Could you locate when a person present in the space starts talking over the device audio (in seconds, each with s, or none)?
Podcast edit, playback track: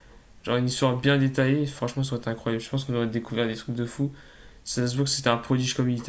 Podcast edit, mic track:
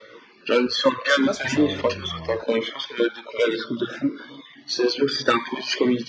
1.1 s